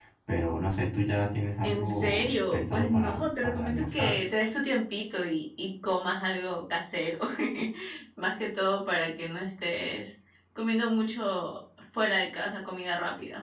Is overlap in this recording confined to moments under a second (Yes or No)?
No